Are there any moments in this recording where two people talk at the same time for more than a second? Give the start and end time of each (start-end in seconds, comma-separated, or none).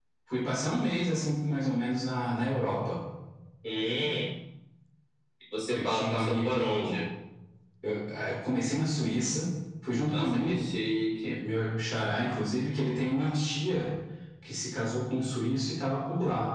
5.7-7.0